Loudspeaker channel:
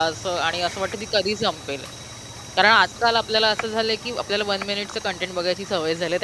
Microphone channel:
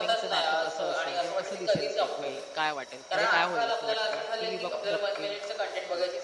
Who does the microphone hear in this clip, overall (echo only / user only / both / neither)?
both